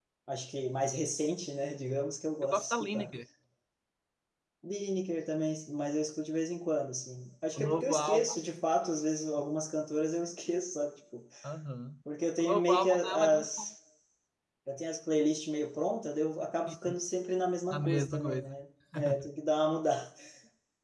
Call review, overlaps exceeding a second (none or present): present